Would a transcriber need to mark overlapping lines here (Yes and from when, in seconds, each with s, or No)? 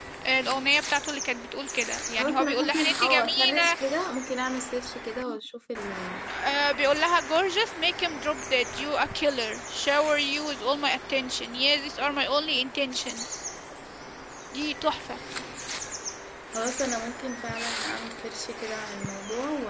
Yes, from 2.2 s